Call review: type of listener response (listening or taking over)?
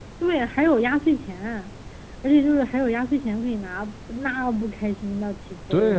taking over